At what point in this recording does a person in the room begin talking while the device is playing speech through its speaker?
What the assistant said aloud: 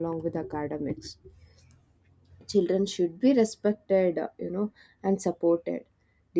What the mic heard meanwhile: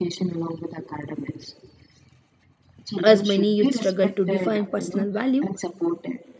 3.0 s

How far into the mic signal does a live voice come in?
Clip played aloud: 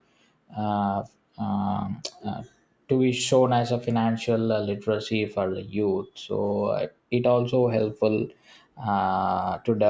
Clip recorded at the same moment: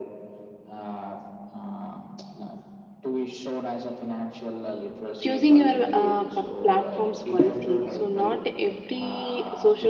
5.2 s

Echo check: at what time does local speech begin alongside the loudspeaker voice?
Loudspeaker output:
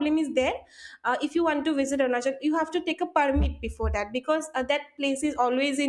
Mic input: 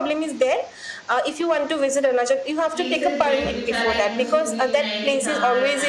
2.7 s

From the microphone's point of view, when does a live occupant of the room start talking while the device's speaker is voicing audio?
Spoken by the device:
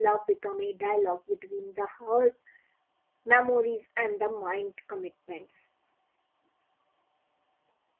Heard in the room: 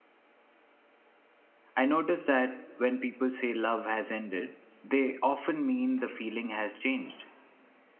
1.8 s

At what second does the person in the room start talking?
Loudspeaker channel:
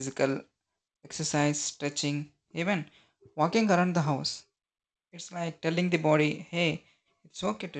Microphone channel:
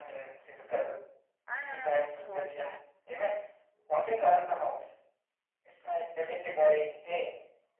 1.5 s

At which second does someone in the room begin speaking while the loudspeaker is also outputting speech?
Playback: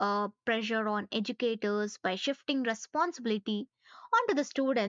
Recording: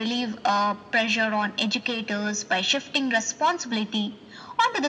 none

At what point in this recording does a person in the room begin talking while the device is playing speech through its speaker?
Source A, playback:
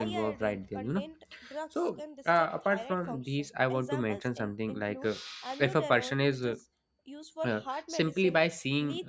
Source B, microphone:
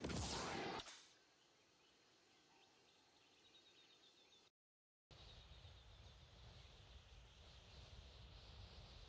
none

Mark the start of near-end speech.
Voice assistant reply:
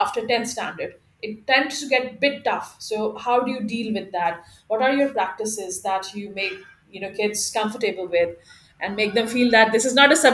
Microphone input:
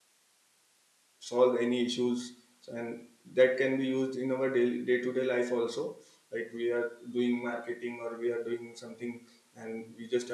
1.3 s

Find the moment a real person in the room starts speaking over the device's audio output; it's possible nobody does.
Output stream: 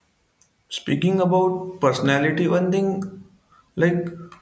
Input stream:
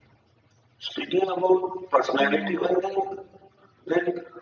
2.2 s

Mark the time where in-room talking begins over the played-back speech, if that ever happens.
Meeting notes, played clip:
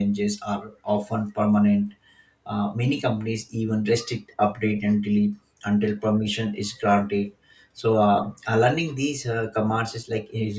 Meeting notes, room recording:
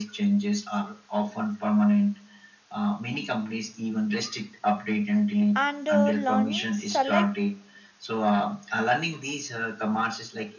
5.5 s

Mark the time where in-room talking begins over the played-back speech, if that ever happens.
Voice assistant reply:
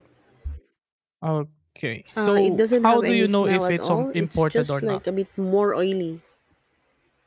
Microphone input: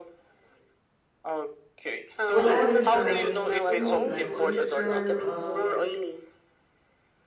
2.3 s

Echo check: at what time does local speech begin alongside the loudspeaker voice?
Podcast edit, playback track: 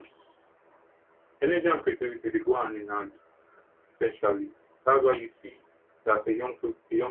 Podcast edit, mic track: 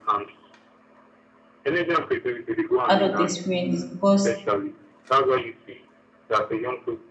2.8 s

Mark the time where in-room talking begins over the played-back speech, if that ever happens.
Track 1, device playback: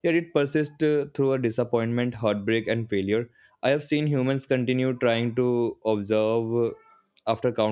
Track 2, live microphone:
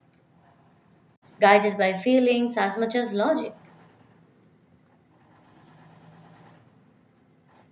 1.4 s

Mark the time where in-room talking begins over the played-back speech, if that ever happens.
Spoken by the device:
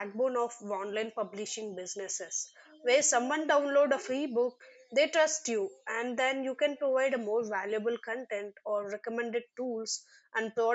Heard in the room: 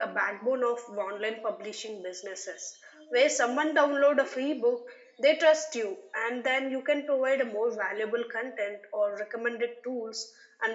none

